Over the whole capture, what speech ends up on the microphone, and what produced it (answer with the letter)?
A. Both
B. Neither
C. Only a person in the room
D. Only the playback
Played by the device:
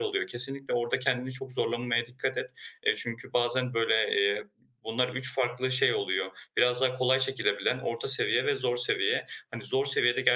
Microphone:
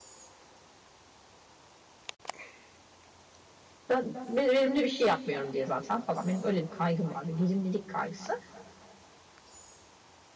C